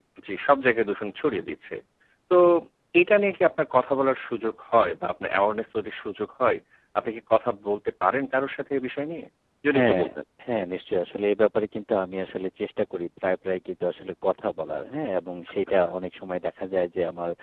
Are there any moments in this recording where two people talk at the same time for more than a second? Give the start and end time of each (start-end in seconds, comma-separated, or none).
none